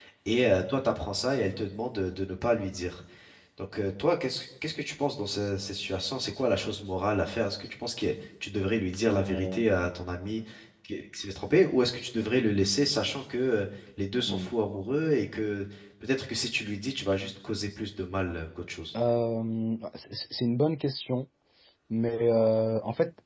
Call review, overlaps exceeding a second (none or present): none